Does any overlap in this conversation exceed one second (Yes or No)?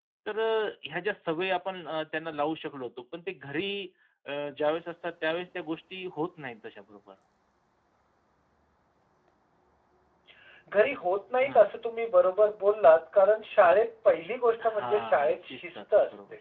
Yes